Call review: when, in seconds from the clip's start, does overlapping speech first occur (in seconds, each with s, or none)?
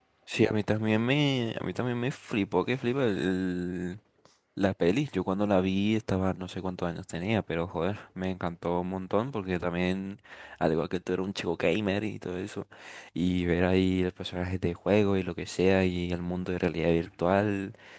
none